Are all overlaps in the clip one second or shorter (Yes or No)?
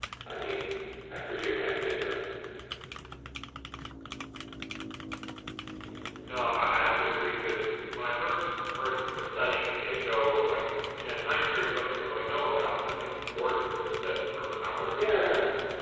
Yes